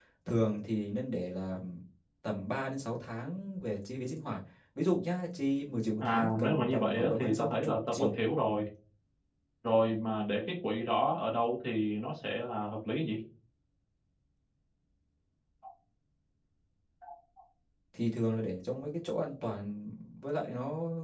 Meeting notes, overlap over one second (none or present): present